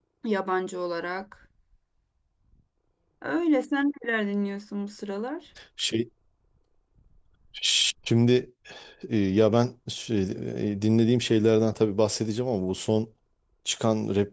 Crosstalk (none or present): none